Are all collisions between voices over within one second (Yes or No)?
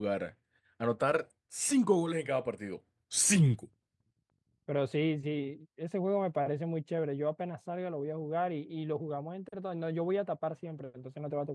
Yes